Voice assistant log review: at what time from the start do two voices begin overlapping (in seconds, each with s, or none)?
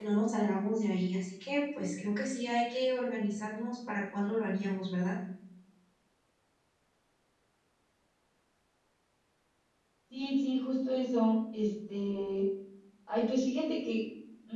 none